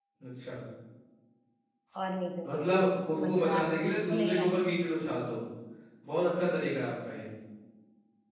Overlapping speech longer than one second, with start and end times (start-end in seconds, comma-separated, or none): 3.2-4.7